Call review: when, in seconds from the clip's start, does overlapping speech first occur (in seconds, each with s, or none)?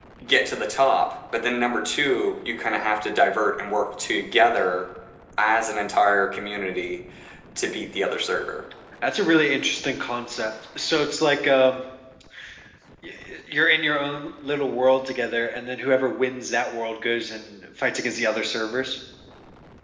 none